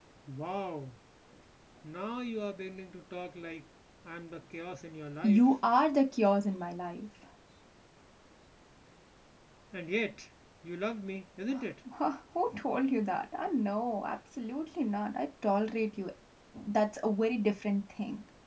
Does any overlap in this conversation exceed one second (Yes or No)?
No